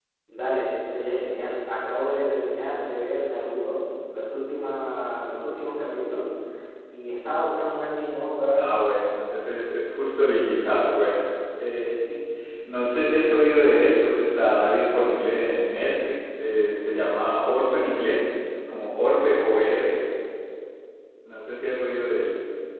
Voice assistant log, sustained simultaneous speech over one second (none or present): none